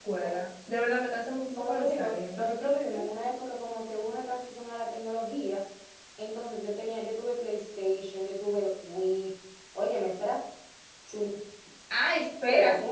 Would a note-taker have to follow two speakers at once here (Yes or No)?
Yes